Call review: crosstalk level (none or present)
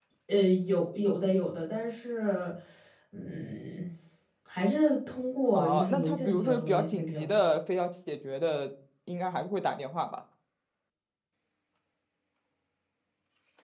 present